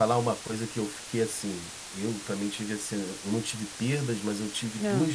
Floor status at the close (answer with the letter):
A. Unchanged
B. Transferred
A